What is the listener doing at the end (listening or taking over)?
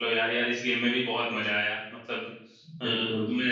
listening